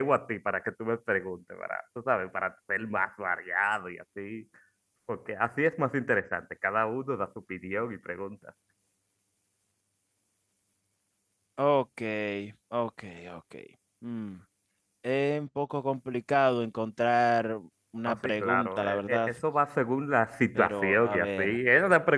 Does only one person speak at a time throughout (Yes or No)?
No